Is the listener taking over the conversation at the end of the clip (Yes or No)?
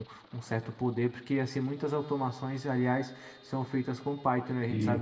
No